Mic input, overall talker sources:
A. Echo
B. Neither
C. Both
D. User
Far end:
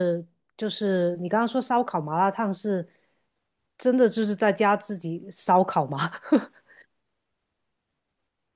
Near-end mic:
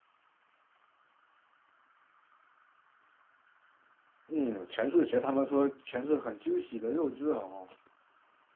D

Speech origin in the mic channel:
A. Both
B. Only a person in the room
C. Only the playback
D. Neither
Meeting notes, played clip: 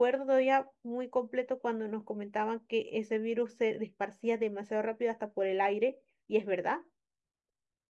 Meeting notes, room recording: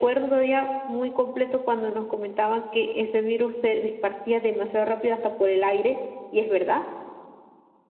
C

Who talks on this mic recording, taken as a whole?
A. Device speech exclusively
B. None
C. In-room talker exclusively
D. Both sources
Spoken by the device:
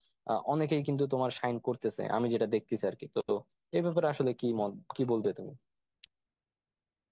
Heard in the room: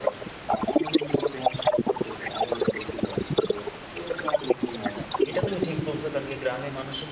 D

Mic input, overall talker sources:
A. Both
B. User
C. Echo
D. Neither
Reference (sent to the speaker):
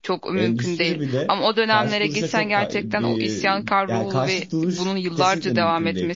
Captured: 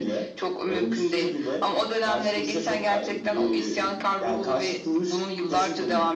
C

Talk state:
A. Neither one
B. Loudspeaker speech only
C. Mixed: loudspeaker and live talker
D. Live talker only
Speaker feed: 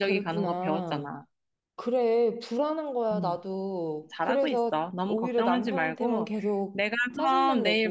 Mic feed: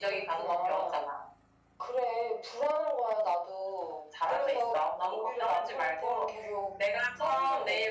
B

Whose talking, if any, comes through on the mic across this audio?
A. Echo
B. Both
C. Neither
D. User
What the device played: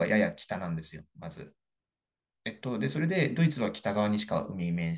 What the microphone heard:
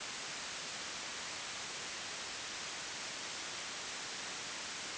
C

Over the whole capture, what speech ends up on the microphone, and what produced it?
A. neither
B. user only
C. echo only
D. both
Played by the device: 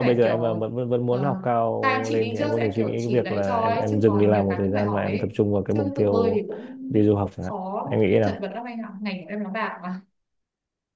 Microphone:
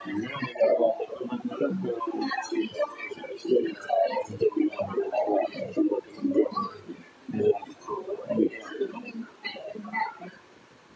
C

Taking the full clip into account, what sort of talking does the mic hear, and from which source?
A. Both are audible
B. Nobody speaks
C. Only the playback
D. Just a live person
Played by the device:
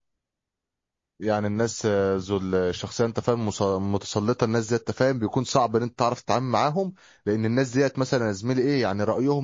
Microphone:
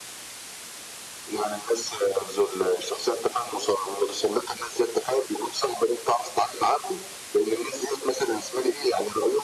C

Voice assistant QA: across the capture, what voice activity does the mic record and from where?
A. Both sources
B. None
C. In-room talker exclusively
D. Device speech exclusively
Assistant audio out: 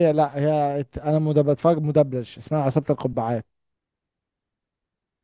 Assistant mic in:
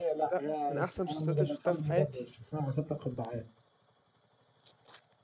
A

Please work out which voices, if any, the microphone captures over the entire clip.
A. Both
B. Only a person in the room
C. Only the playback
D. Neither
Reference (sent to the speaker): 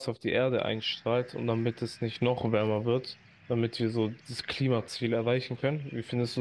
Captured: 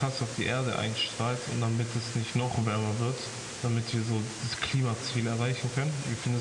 C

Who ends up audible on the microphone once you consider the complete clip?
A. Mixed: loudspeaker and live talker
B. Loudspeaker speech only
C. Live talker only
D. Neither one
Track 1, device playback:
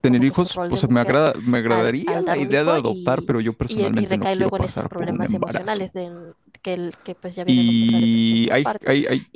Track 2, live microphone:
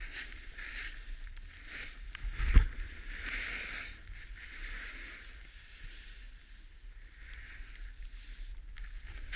D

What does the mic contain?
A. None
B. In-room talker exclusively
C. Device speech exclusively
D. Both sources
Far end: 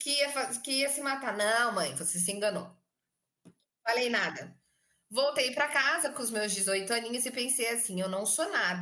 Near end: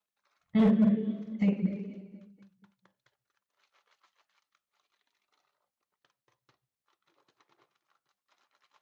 B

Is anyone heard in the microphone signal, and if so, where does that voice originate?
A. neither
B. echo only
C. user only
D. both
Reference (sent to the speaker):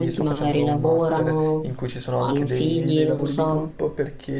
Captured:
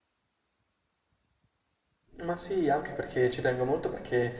C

